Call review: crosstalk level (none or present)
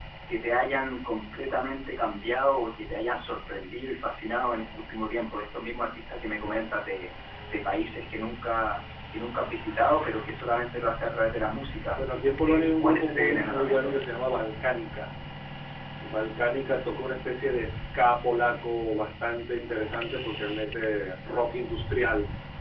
present